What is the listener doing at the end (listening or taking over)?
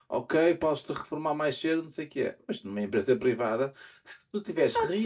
listening